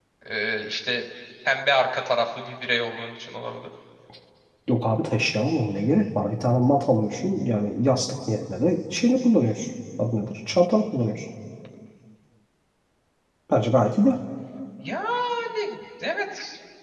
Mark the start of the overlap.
none

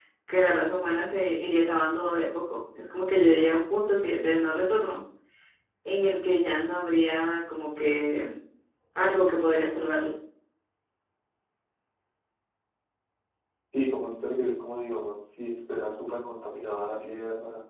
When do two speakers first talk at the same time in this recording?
none

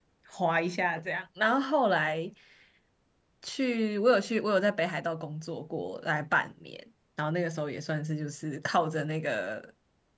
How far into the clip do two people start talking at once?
none

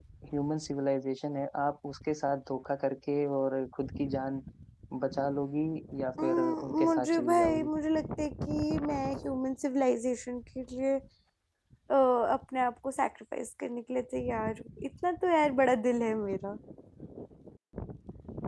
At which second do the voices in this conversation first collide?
6.2 s

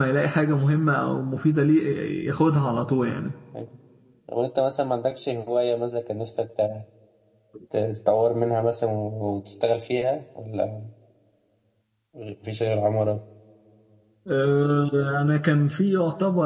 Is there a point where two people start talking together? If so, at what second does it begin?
none

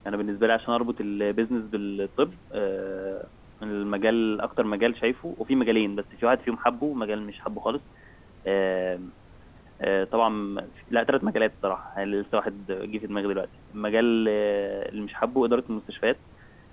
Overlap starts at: none

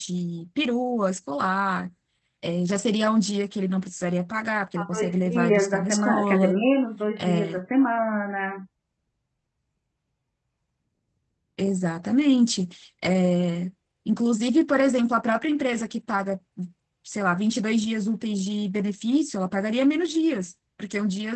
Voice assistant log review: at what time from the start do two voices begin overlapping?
4.8 s

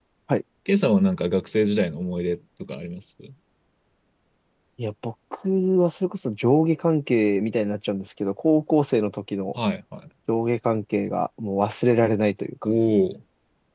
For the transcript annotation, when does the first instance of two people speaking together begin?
none

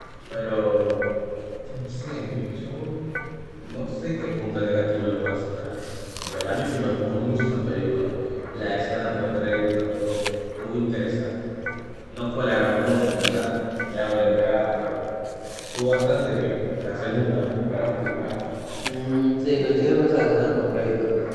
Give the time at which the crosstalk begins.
none

